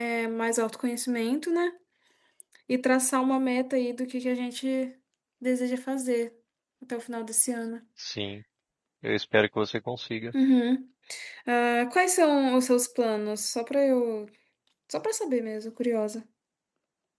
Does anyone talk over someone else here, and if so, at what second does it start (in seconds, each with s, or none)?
none